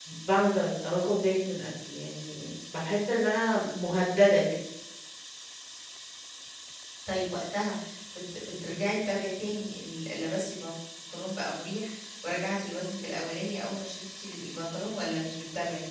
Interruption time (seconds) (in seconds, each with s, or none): none